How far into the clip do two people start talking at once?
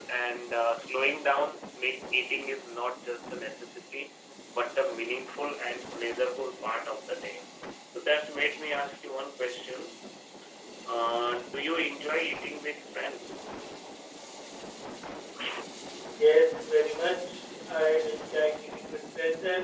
none

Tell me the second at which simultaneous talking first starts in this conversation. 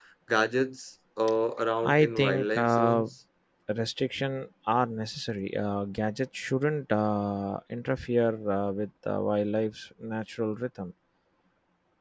2 s

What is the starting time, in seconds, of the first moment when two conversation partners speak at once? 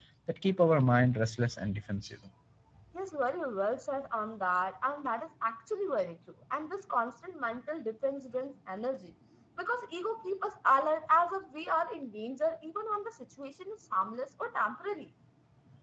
none

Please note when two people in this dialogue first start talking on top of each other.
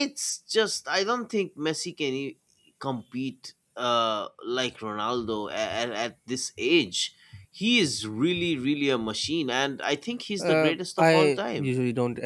10 s

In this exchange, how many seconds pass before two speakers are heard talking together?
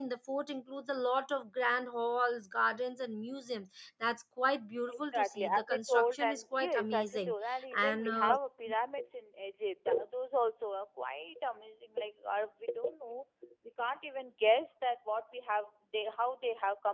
5 s

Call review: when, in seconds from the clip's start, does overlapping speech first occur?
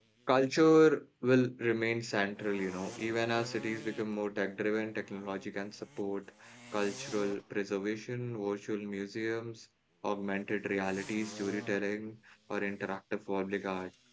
none

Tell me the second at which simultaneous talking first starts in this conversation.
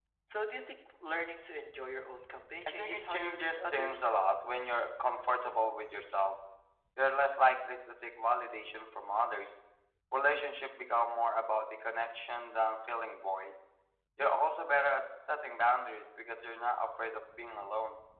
3 s

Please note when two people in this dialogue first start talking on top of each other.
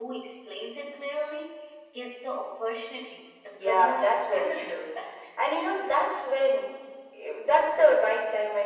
4 s

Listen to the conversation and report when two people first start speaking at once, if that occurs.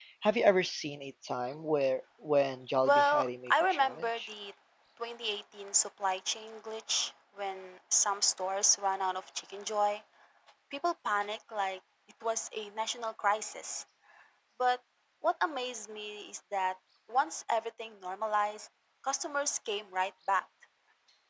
3 s

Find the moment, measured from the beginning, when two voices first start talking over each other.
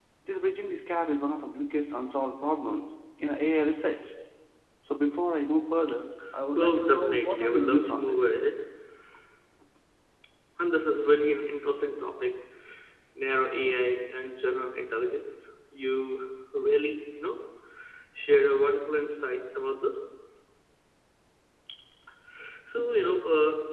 7 s

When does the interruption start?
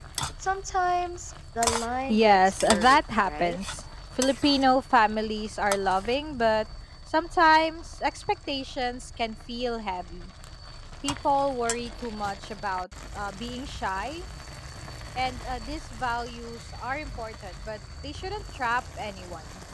2 s

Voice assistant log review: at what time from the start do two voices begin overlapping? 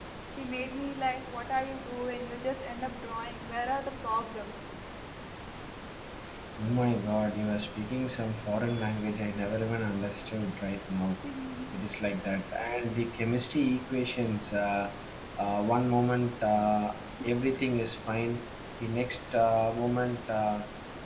none

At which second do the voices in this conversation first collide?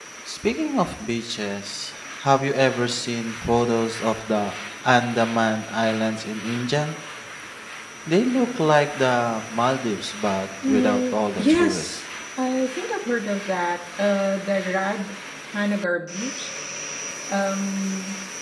11 s

